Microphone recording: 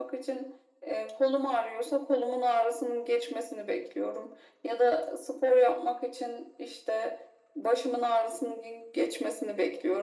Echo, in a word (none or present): present